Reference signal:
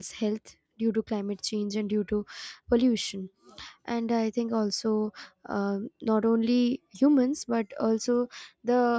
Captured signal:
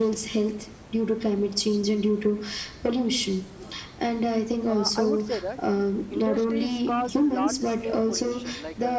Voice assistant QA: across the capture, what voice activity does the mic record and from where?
both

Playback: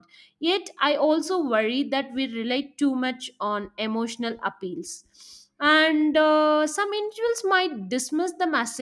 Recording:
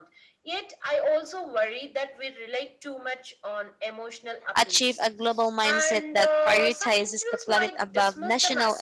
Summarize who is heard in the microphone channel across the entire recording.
both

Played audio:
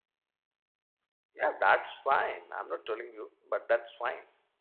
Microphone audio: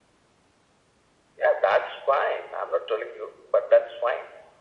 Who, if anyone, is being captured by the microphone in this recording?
echo only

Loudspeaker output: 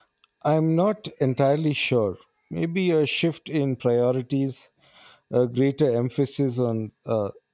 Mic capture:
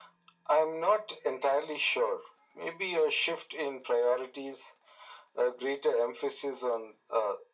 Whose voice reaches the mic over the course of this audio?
echo only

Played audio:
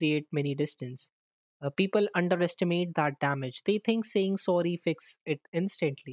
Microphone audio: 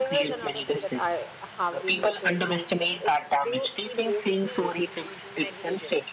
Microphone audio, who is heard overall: both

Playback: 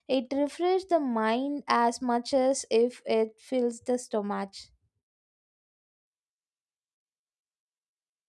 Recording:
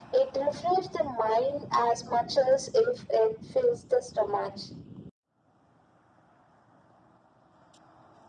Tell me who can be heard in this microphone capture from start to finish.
echo only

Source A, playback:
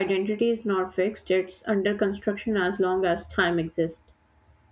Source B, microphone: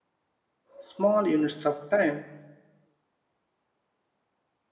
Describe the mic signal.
user only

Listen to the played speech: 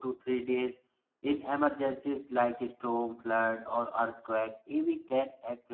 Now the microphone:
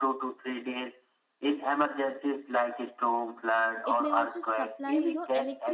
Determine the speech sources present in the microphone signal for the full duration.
both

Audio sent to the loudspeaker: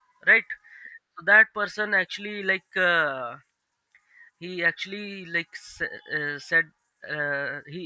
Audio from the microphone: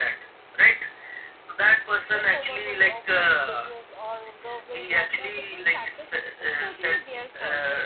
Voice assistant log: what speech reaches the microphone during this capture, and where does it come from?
both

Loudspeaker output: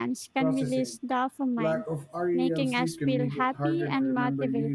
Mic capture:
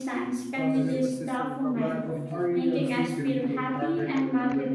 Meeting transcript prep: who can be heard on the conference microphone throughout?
both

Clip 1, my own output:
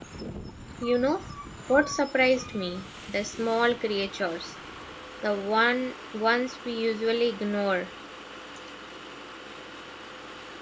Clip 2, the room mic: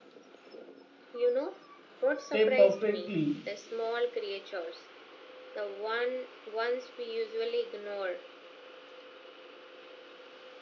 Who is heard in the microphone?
both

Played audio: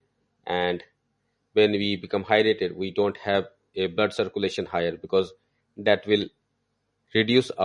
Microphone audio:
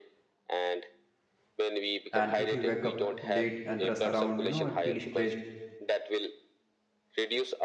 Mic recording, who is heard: both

